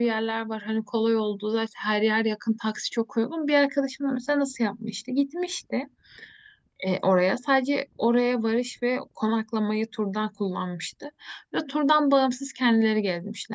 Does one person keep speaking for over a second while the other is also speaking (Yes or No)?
No